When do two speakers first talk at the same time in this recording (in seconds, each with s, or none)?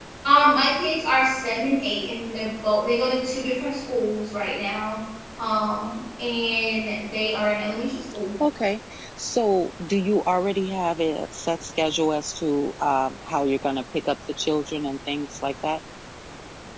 none